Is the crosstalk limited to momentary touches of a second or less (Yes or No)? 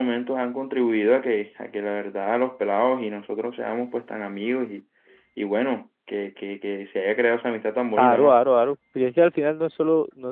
Yes